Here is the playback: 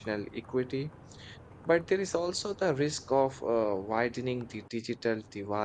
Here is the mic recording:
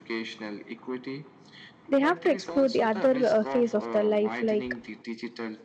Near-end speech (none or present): present